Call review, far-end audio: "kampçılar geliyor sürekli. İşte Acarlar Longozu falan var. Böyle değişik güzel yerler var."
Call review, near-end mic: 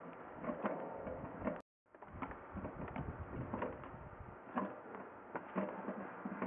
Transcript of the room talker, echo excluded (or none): none